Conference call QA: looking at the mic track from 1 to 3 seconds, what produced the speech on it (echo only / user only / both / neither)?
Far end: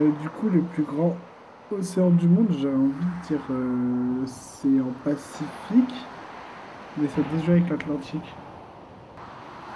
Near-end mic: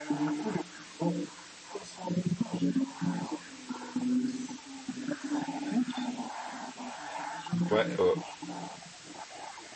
echo only